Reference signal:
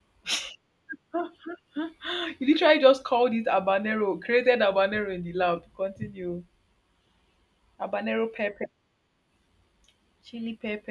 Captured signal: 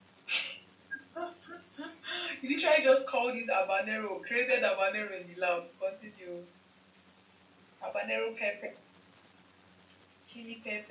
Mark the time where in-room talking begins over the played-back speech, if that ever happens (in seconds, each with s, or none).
none